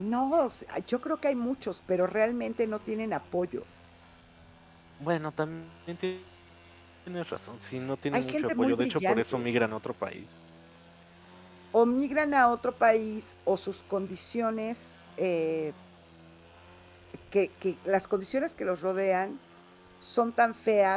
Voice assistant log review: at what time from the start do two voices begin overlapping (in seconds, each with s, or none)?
8.1 s